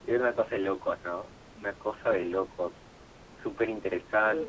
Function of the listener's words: taking over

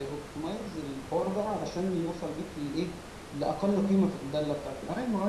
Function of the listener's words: listening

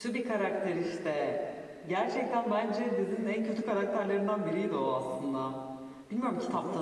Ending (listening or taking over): listening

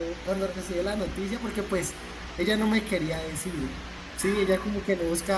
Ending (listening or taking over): listening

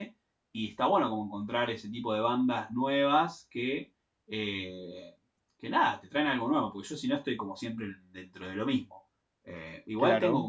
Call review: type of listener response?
listening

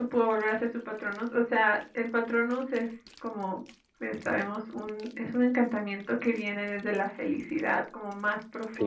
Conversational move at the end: listening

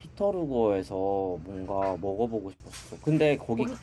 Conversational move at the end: listening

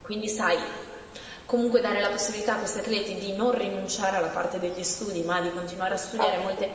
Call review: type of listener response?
listening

